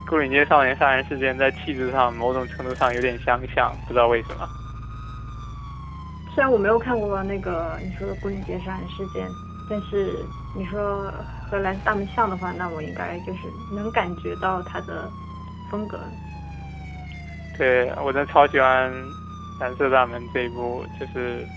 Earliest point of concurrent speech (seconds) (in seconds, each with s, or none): none